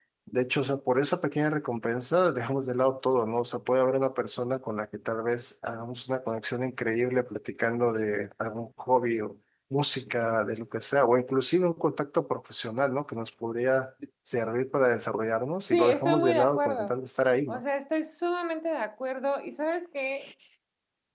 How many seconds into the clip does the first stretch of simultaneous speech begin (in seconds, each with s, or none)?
15.7 s